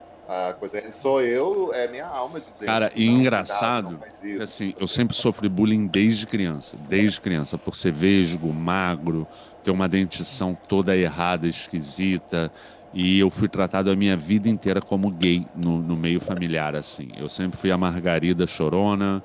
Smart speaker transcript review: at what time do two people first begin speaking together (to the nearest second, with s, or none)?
3 s